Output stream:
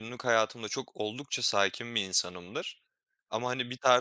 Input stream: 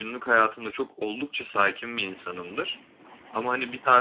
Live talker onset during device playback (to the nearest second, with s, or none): none